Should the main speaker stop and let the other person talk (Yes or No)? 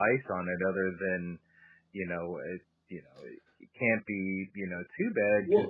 No